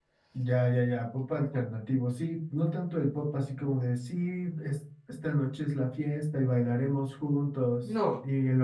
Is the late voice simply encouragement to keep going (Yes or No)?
Yes